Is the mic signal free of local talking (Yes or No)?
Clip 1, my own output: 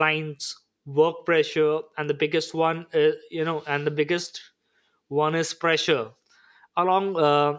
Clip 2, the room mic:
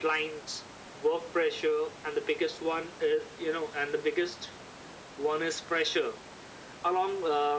Yes